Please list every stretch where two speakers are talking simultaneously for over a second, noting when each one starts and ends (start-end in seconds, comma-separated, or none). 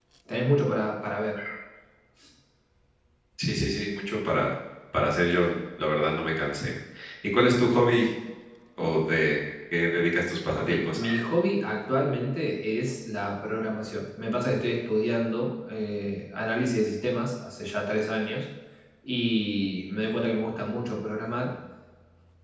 none